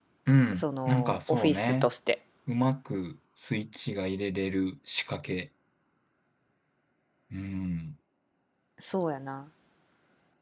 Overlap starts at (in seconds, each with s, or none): 0.5 s